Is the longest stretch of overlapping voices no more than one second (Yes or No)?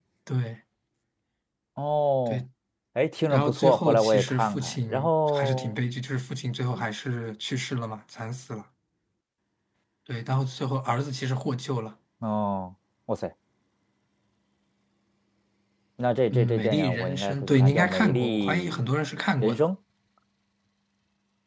No